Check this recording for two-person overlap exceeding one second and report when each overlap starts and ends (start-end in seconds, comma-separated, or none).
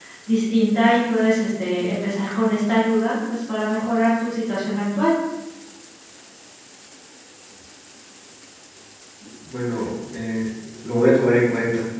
none